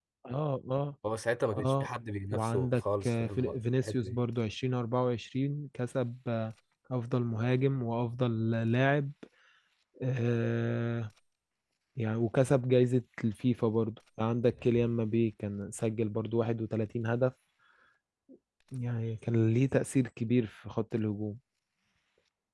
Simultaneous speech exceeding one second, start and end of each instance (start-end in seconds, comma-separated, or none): 2.3-4.2